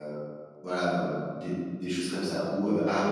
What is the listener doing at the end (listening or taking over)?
listening